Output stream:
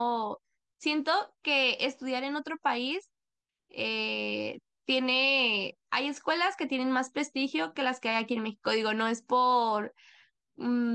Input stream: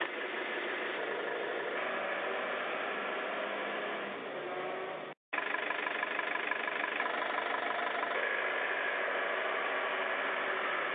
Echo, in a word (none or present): none